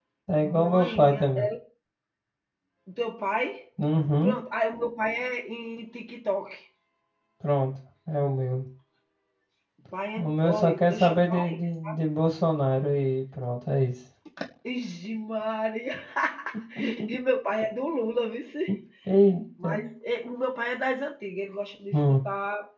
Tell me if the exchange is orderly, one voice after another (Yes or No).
No